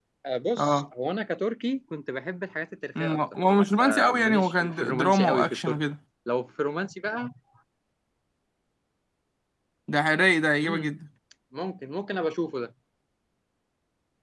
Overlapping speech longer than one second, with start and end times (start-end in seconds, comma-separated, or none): 3.8-5.8